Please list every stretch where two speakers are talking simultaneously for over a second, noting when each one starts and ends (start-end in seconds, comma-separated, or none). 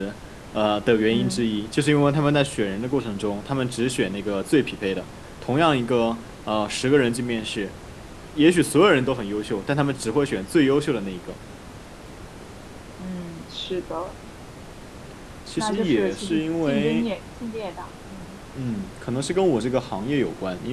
15.6-17.1